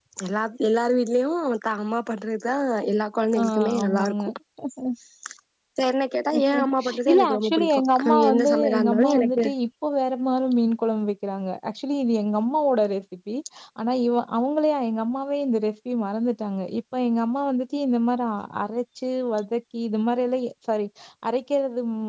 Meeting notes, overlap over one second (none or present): present